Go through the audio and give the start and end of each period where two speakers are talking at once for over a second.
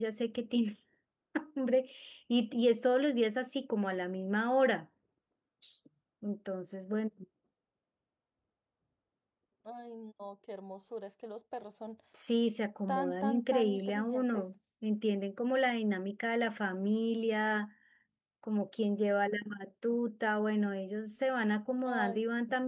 12.9-14.4

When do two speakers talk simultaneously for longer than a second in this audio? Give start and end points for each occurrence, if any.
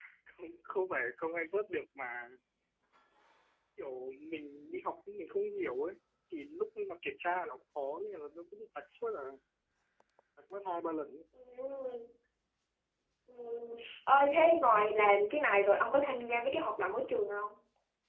none

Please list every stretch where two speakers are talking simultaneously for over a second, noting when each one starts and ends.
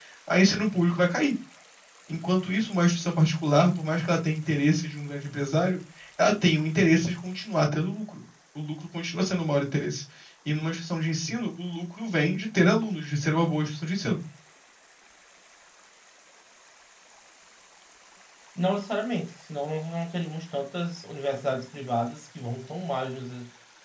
none

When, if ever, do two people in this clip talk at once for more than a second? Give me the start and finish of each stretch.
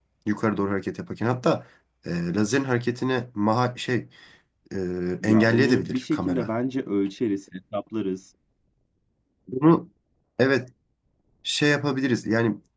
5.2-6.5

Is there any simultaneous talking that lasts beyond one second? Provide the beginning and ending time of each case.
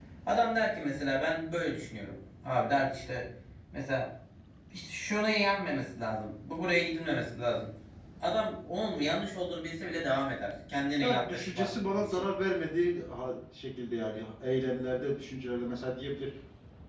11.0-12.3

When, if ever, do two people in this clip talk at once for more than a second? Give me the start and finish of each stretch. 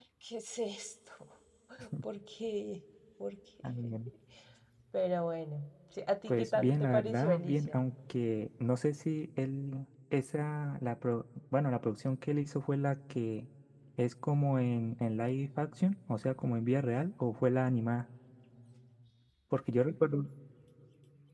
6.3-7.8

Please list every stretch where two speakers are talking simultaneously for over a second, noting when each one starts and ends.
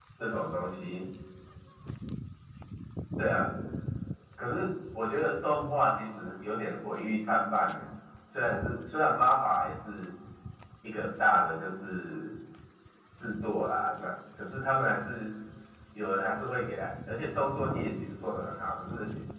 none

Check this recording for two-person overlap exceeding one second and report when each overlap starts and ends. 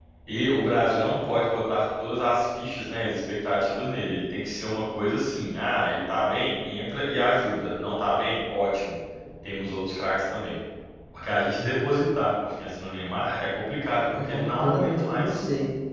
14.2-15.4

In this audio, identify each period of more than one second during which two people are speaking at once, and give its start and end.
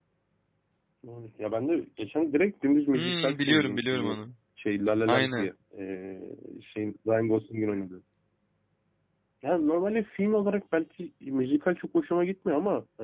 2.9-4.2

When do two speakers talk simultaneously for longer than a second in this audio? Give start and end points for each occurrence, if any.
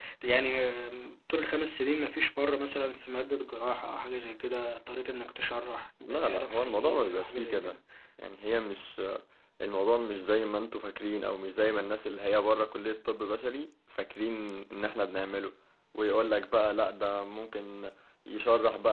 6.0-7.8

